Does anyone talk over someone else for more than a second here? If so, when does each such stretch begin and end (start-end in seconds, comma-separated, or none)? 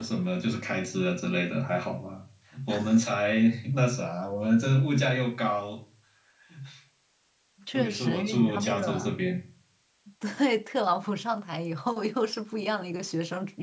7.7-9.1